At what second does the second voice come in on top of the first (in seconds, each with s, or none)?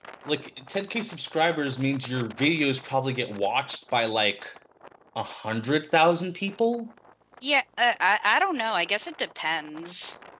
none